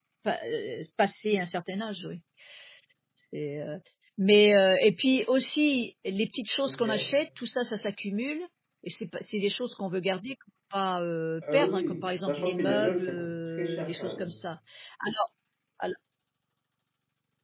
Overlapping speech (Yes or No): Yes